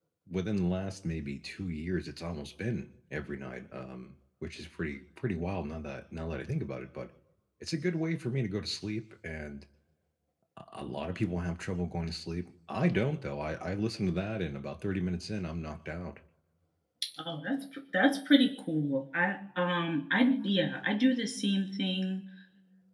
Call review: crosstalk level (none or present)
none